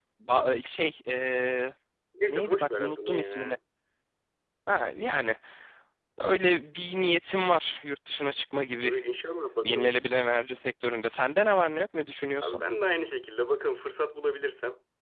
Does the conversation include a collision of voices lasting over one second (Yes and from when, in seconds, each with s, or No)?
Yes, from 2.3 s